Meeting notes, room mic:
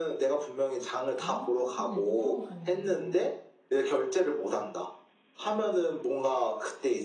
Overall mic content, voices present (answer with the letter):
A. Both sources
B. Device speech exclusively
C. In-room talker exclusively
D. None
A